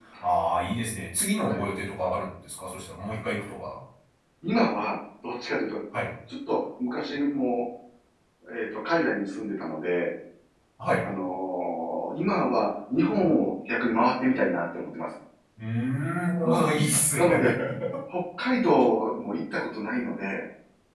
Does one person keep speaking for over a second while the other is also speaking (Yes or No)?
No